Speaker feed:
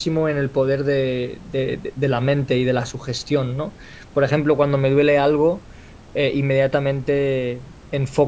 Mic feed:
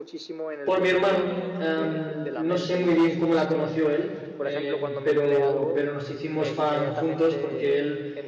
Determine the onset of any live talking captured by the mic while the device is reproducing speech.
1 s

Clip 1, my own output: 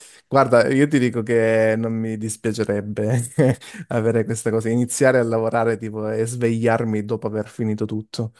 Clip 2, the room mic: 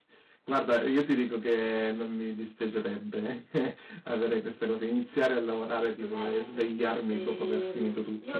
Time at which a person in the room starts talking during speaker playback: 6 s

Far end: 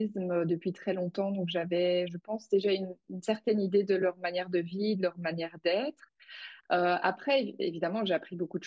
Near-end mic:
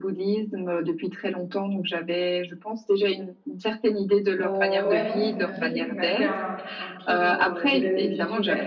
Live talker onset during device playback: 4 s

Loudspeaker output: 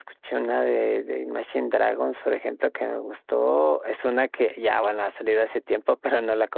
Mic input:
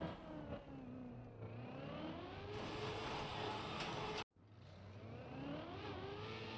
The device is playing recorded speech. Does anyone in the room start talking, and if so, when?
none

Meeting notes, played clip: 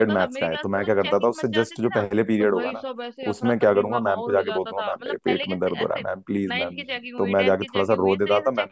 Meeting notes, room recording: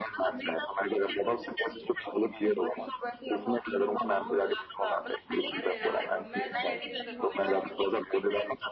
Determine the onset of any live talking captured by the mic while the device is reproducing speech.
6 s

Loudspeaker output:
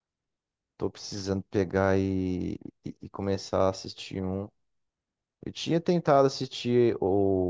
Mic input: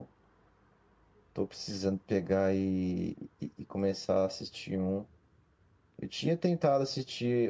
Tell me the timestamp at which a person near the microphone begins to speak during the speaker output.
none

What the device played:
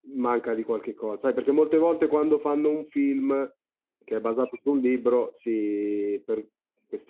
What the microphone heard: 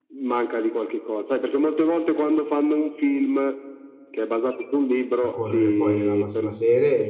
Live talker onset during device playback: 5 s

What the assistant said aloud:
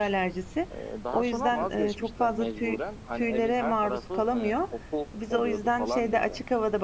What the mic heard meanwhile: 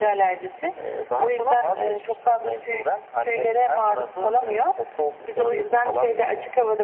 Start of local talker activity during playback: none

